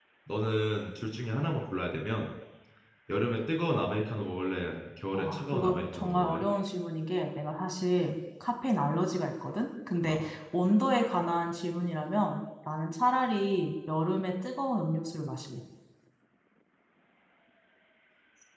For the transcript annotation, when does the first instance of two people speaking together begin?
5.1 s

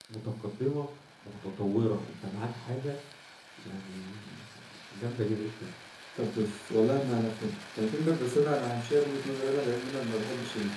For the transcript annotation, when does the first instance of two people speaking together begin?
none

